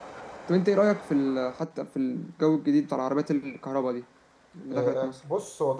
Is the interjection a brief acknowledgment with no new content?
No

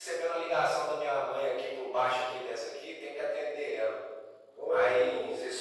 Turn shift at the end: No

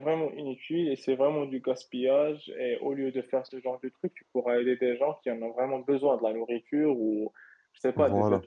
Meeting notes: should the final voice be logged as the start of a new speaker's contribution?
No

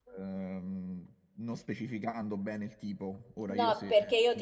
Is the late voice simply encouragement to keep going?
No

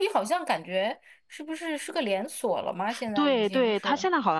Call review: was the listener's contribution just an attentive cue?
No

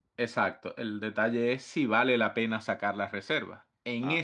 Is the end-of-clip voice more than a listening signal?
No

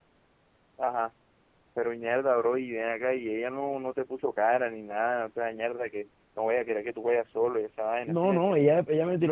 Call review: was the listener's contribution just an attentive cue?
No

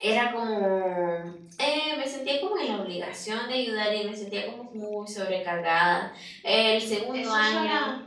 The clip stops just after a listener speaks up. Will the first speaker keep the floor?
No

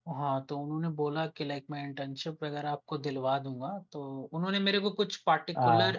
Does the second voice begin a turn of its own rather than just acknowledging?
No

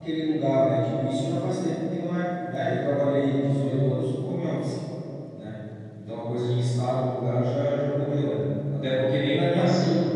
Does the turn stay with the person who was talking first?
Yes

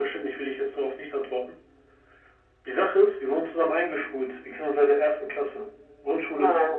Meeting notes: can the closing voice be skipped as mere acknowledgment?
Yes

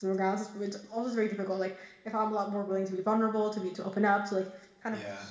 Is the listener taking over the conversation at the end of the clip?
No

